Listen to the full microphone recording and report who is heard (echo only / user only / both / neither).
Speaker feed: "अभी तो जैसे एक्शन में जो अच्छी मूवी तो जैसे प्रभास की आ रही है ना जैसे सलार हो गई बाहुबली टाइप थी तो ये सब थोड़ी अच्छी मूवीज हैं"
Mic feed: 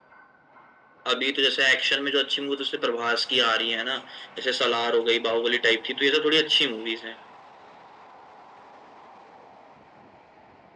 echo only